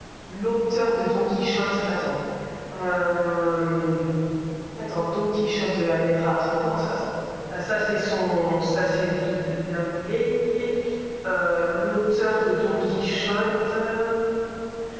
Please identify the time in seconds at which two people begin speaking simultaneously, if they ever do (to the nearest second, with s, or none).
none